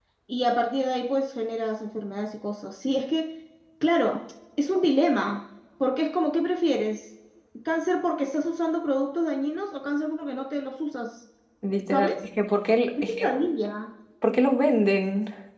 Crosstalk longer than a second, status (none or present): none